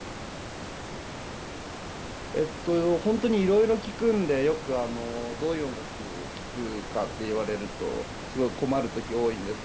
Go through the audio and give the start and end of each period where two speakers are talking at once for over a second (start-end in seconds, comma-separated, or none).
none